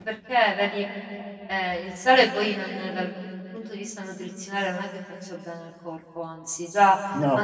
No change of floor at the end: Yes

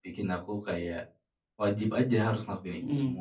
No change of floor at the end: No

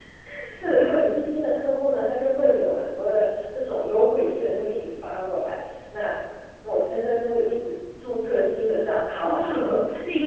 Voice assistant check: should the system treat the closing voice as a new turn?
Yes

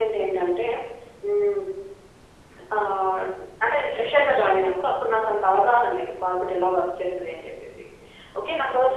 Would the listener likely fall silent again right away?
Yes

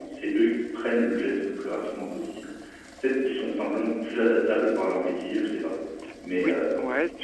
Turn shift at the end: Yes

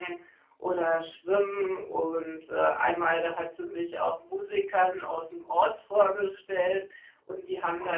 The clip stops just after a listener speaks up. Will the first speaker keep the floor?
Yes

